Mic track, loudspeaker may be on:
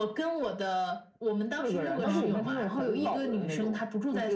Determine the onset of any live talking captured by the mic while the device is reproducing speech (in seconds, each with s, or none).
2.0 s